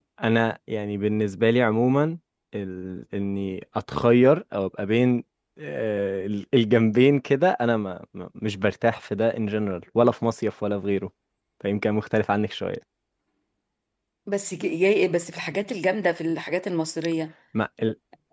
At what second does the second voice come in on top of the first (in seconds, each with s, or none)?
none